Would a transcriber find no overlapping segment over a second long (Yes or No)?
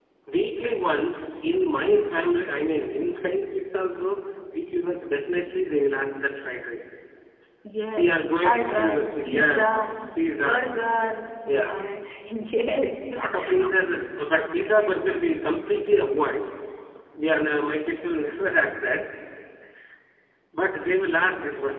No